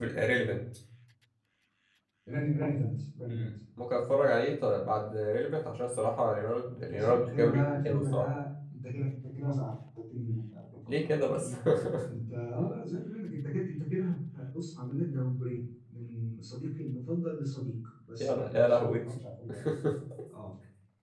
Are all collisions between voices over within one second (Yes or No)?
No